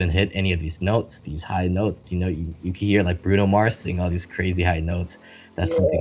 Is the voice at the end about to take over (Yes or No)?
No